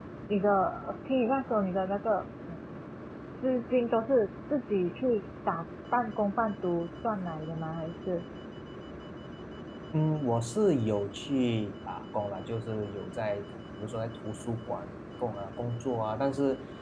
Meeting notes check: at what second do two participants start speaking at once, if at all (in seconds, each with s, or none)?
none